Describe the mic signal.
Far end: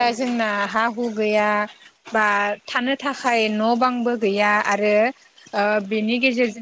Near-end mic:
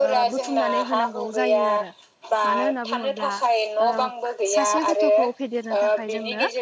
both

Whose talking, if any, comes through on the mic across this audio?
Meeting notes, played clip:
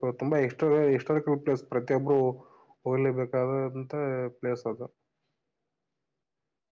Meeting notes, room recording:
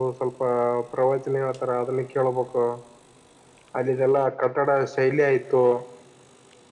user only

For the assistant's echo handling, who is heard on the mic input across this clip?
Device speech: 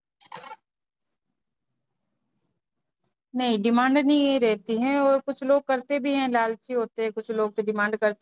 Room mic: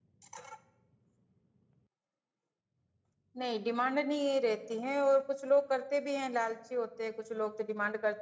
echo only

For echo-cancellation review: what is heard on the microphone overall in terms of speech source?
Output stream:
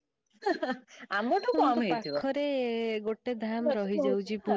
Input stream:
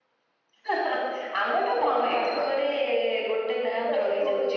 echo only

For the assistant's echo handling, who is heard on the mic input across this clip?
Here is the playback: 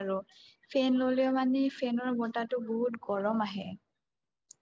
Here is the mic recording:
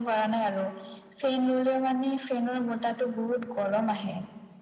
echo only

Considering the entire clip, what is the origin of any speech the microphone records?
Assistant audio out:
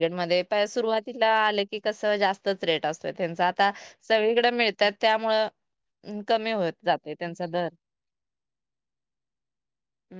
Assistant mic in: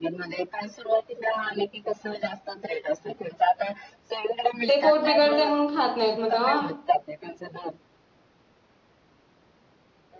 both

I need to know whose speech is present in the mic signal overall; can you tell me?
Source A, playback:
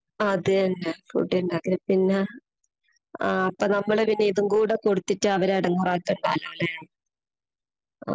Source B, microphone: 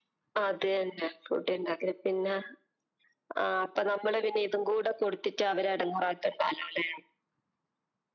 echo only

